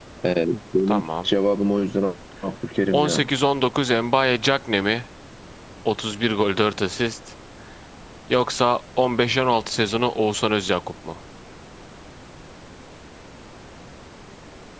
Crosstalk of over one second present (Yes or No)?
No